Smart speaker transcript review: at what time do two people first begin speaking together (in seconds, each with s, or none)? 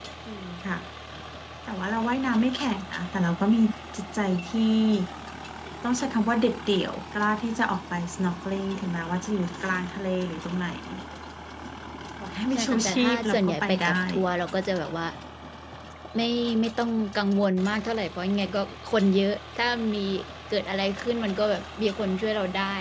12.5 s